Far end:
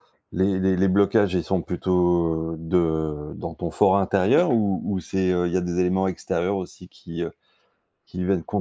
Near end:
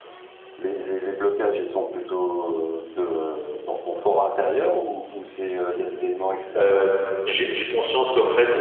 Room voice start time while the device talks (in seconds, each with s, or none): 6.5 s